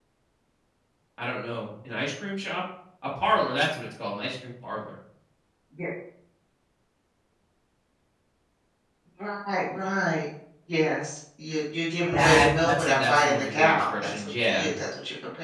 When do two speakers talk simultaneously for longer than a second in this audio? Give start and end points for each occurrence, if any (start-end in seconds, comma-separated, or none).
12.1-14.7